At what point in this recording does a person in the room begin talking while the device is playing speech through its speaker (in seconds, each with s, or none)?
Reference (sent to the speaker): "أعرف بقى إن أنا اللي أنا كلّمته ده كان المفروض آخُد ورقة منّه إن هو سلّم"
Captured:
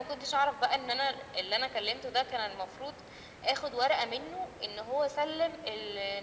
none